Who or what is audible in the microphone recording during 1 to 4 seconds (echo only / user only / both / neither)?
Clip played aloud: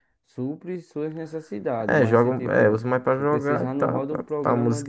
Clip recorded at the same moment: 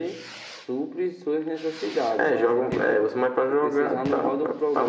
echo only